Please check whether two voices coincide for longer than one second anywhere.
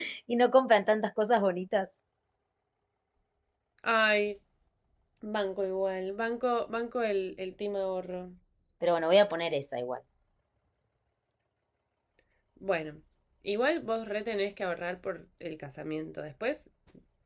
No

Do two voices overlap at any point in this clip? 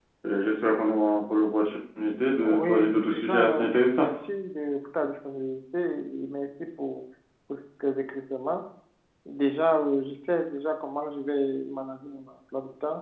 Yes, from 2.4 s

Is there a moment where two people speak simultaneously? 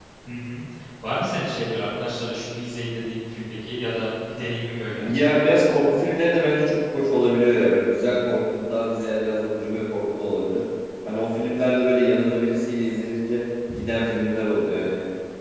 No

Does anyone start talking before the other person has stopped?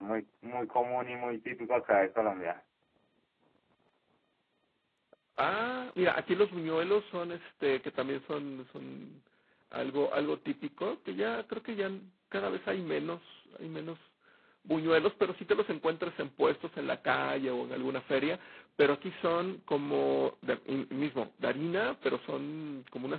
No

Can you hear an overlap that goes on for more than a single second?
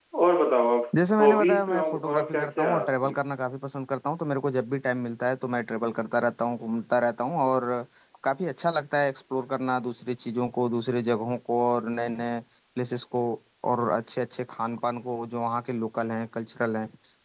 Yes, from 1.2 s

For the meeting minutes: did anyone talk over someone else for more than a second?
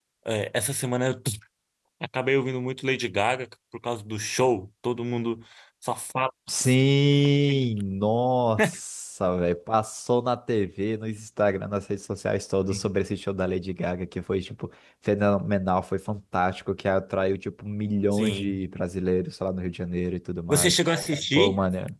No

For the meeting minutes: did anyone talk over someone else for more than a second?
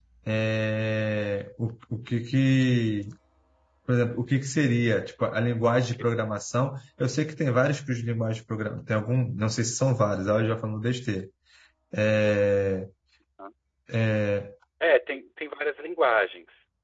No

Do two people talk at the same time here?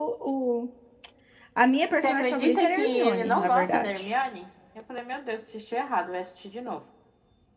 Yes, from 1.9 s

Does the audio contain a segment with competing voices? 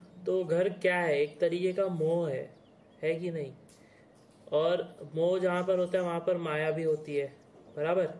No

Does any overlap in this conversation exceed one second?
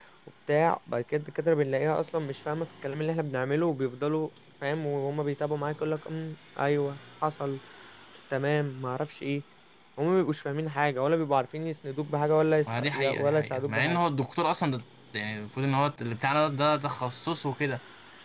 Yes, from 12.6 s

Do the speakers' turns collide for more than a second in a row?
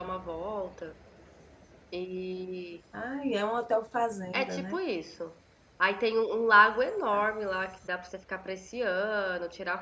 No

